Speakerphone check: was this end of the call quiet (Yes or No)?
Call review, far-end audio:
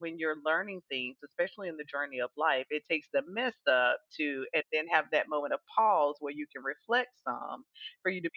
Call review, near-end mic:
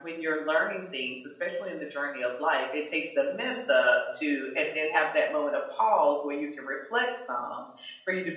Yes